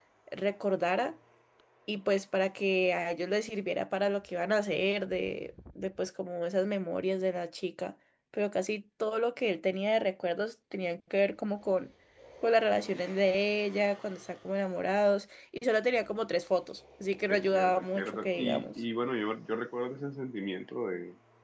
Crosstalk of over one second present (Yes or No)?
Yes